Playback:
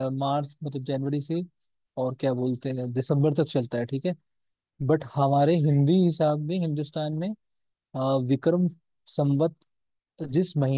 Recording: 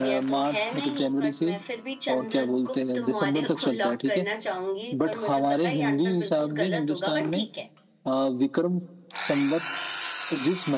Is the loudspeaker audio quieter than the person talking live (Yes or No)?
No